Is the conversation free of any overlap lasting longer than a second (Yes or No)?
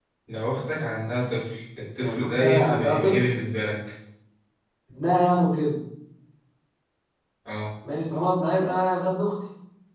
No